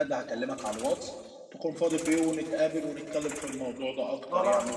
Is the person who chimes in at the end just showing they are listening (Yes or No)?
No